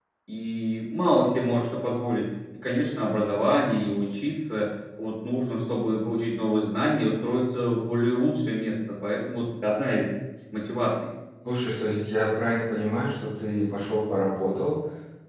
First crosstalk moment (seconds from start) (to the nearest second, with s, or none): none